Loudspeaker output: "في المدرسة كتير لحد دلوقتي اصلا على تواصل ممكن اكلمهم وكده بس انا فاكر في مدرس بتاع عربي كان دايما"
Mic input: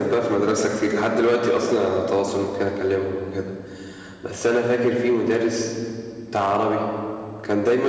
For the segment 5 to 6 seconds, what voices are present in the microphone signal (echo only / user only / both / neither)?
echo only